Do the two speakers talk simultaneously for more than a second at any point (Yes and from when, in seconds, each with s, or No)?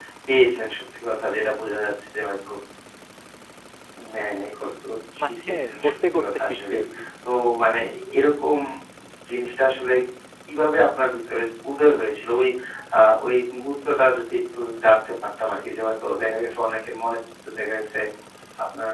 Yes, from 5.2 s